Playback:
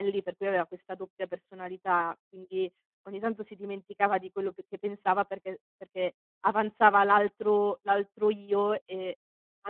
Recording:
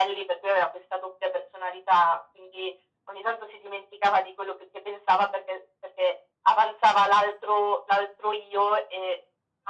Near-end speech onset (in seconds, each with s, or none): none